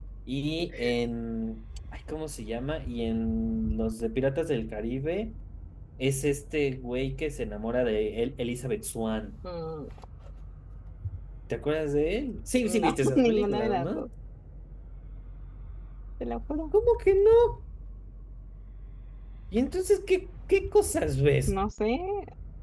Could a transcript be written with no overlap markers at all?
No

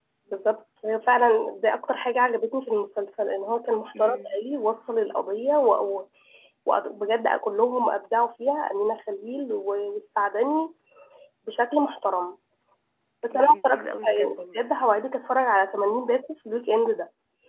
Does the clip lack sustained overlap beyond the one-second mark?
No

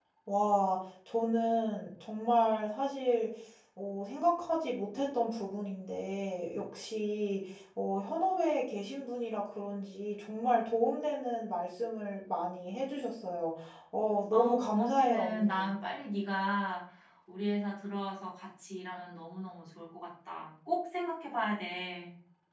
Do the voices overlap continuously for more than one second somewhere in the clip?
Yes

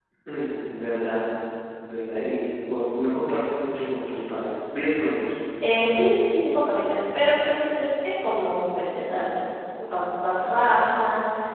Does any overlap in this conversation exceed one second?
No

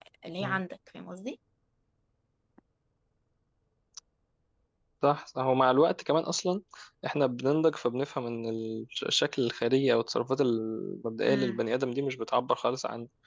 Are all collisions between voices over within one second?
Yes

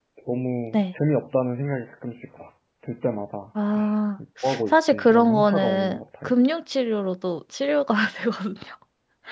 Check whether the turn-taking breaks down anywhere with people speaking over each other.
Yes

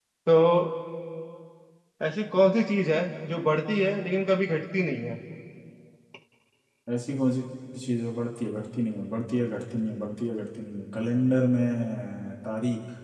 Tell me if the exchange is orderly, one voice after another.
Yes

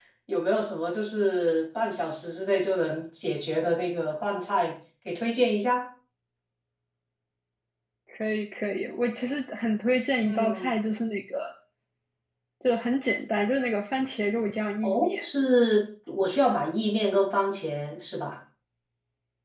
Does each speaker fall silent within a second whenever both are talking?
Yes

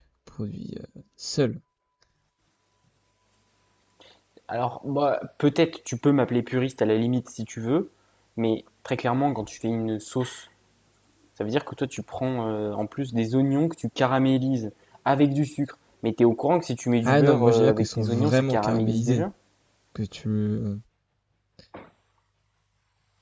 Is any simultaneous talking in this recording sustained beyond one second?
Yes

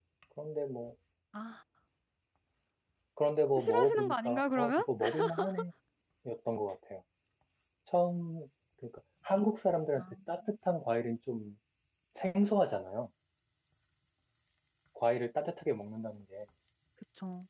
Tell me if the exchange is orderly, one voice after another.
No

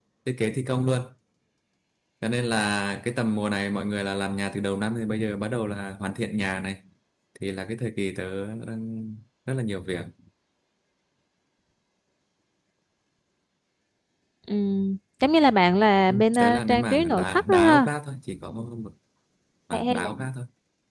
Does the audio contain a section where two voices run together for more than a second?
Yes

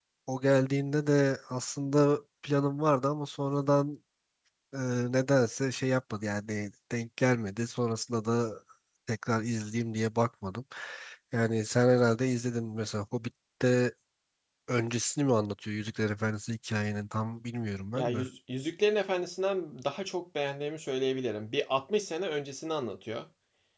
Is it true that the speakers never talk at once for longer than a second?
Yes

